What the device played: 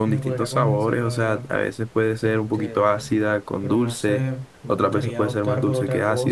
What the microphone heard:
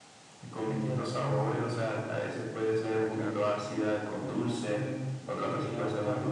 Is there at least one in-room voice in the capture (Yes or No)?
Yes